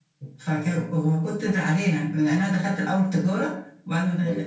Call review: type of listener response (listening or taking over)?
listening